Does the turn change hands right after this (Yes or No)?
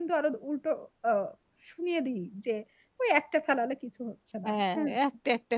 Yes